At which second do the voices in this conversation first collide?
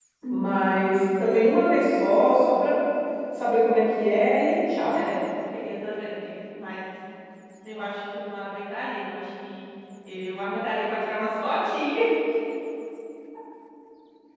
none

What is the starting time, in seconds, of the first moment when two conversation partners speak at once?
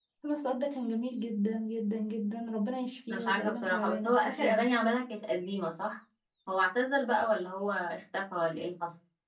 3 s

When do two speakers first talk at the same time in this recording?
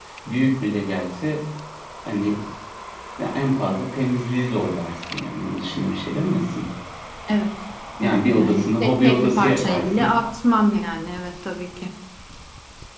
8 s

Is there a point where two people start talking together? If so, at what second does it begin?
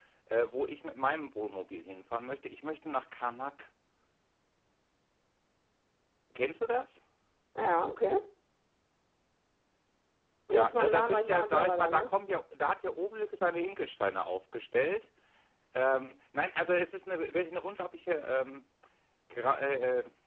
11 s

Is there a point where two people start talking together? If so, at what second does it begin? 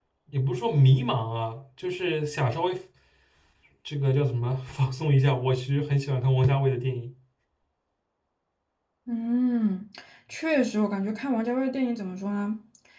none

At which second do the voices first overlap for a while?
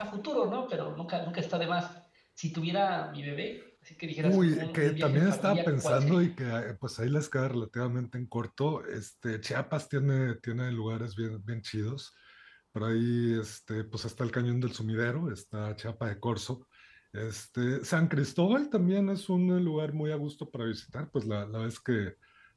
4 s

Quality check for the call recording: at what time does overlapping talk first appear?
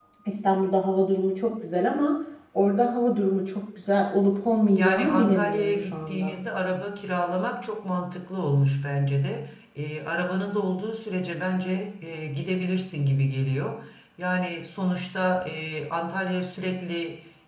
5 s

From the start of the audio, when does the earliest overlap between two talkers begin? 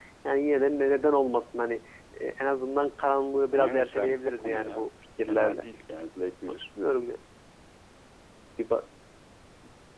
4 s

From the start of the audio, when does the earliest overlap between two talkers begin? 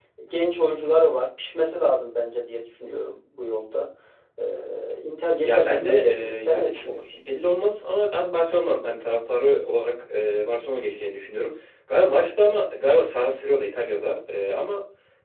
5 s

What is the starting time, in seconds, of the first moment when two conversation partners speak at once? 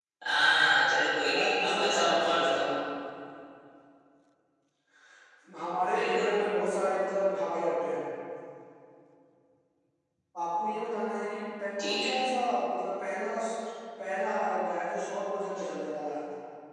1 s

